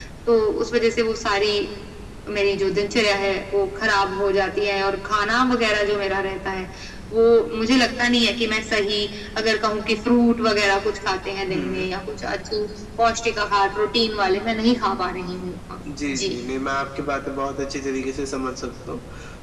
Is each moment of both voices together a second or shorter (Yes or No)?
Yes